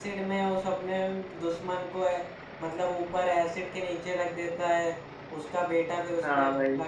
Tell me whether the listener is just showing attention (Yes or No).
No